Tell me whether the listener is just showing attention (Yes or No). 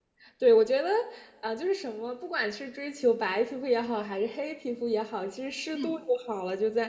Yes